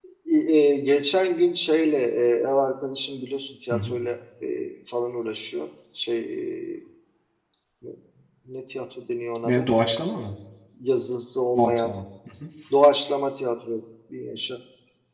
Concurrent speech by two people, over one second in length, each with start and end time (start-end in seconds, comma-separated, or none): none